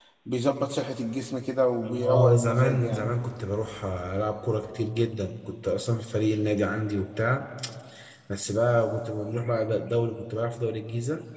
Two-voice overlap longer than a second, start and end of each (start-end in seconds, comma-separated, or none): 1.9-3.1